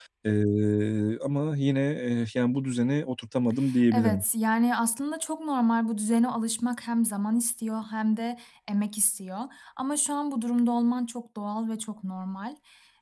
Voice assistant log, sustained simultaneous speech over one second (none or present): none